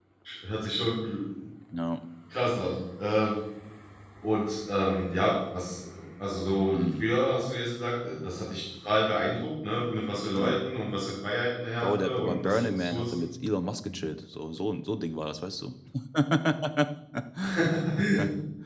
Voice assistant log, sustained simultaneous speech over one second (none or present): present